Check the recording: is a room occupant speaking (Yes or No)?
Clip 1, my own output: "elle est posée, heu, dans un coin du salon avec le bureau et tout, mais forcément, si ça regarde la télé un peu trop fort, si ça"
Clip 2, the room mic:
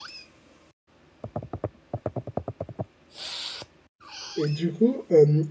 Yes